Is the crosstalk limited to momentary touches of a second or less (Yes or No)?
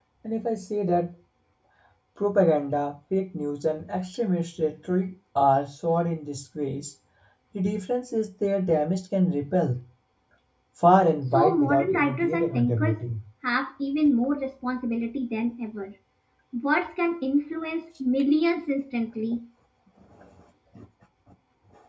No